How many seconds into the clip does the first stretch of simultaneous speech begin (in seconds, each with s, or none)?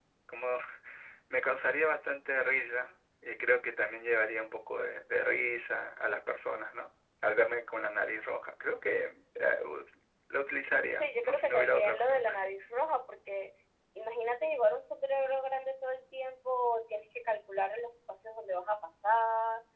10.9 s